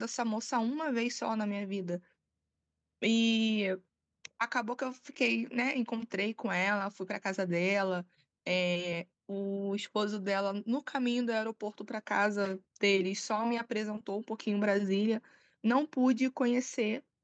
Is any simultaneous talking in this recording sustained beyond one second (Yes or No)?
No